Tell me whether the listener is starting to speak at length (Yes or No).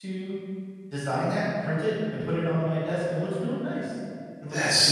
Yes